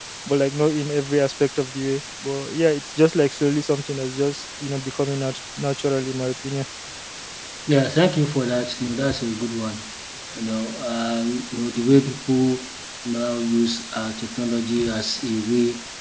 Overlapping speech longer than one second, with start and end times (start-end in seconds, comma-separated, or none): none